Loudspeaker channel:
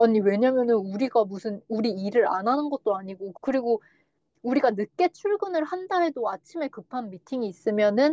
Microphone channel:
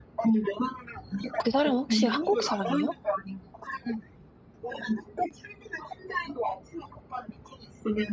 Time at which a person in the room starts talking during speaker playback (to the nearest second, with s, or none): 1 s